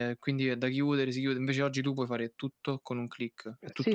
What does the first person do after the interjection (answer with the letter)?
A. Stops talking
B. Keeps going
A